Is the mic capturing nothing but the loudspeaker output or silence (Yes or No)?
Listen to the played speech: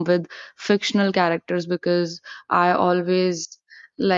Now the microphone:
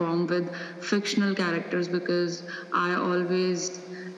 Yes